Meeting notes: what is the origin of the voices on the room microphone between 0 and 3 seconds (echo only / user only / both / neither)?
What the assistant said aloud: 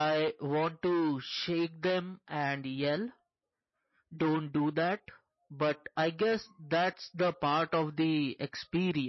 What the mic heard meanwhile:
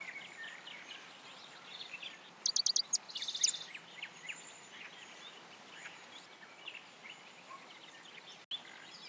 neither